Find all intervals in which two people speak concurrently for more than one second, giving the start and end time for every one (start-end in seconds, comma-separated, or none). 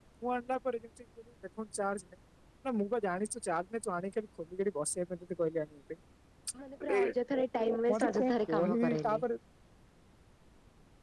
7.9-9.2